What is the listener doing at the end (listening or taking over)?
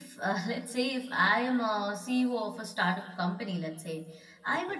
listening